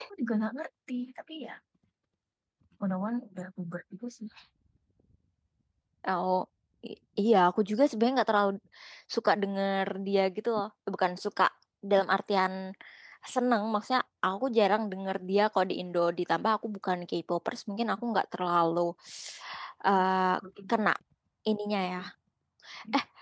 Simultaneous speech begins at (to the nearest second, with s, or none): none